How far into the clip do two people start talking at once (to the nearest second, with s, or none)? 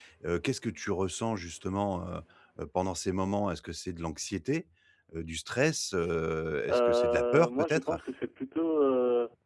7 s